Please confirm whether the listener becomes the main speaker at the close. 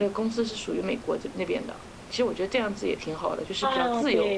Yes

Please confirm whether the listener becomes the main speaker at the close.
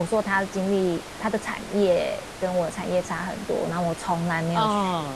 No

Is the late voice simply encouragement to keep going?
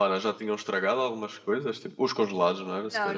No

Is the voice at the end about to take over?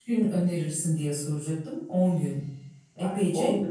Yes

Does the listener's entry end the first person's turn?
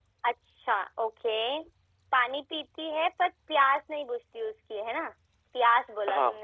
No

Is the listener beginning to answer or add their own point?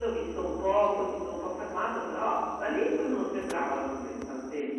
Yes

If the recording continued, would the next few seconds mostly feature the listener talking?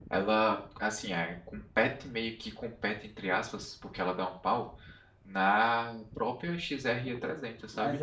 Yes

